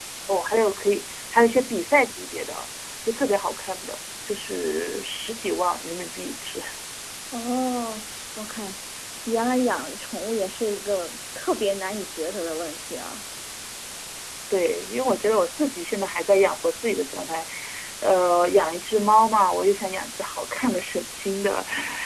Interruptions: none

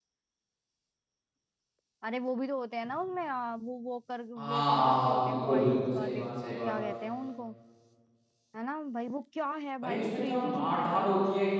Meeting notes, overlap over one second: present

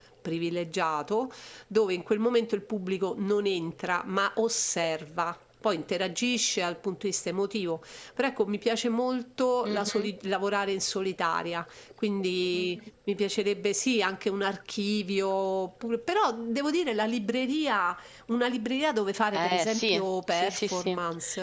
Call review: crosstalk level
present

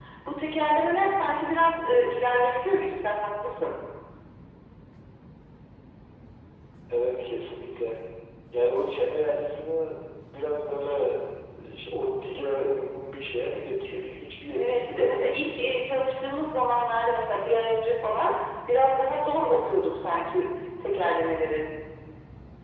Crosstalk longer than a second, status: present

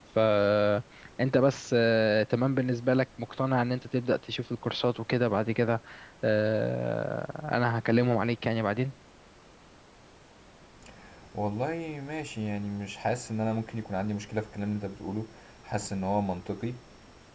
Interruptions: none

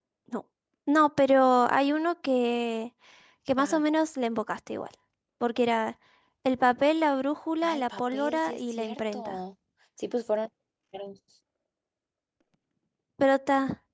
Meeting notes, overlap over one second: present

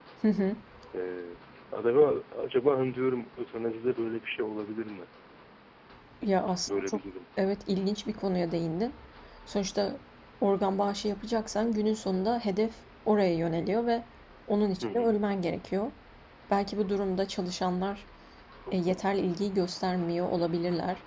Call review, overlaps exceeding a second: none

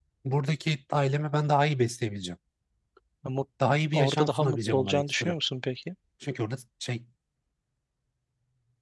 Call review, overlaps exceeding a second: present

